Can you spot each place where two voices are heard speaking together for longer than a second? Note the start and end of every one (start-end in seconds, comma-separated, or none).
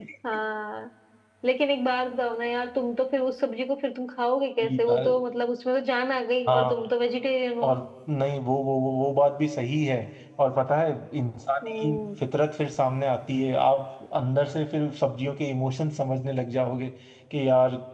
none